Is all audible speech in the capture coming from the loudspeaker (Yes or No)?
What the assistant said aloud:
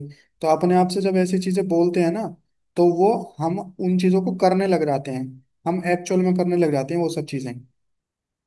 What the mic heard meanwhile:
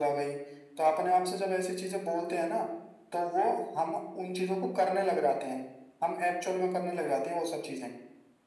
Yes